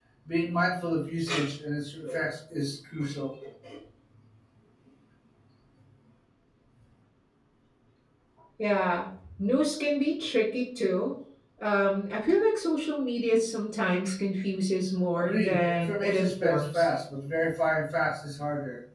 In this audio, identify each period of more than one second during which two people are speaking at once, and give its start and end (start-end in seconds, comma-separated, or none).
15.1-16.9